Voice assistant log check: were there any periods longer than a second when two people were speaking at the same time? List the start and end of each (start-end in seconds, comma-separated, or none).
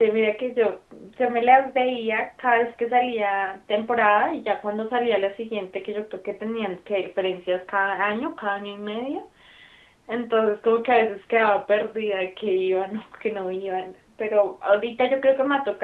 none